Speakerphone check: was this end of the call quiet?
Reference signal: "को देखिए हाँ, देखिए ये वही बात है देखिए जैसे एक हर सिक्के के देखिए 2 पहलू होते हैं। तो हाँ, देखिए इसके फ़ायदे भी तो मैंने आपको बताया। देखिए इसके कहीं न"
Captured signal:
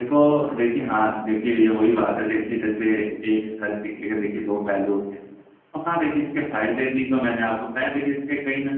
Yes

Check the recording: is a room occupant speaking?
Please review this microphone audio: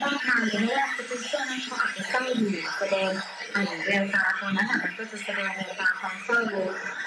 No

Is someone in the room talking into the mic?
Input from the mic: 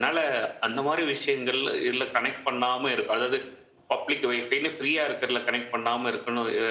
No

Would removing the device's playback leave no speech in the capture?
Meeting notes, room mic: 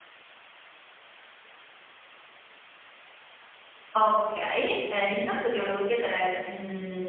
No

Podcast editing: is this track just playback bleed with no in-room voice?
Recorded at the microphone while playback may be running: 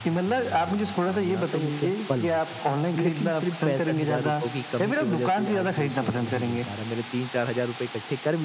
No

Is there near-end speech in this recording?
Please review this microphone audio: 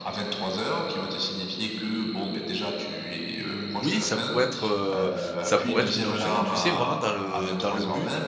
Yes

